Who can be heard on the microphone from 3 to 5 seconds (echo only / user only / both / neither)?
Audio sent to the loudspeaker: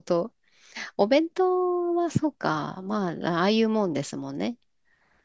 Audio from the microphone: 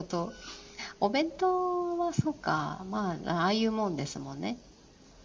echo only